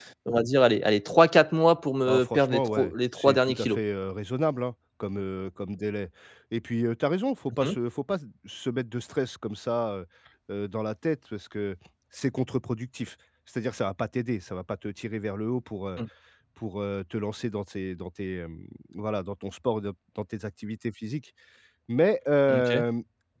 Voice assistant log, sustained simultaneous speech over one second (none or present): present